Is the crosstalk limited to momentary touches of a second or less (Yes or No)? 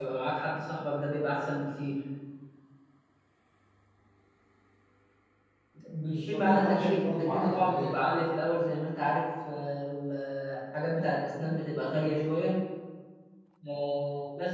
No